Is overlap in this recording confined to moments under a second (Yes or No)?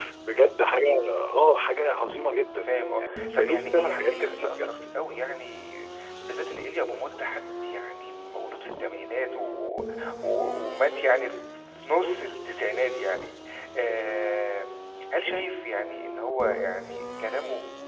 No